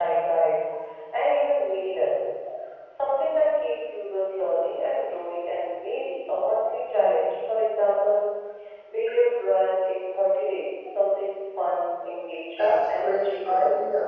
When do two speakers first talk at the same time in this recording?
12.6 s

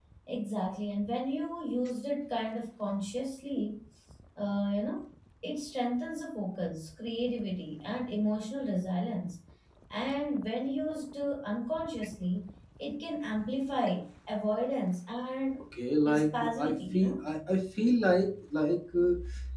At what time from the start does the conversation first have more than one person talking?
16.0 s

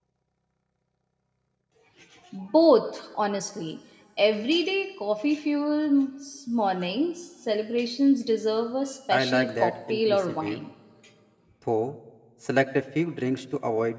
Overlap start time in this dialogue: 9.1 s

